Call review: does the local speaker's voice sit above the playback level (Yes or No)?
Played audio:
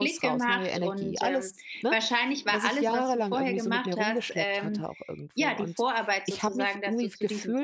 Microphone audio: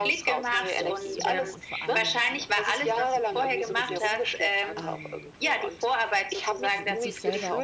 No